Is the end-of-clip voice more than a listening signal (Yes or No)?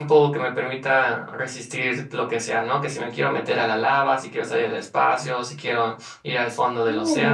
Yes